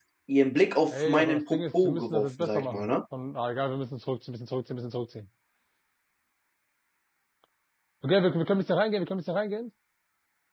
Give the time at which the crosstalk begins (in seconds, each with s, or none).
0.9 s